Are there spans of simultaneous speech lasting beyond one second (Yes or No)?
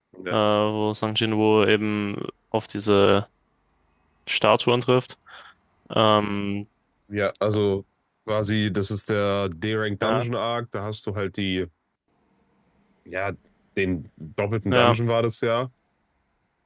No